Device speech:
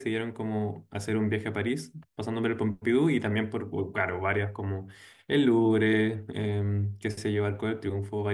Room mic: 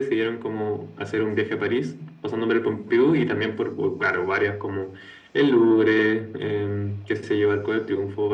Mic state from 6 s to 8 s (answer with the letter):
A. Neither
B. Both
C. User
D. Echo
D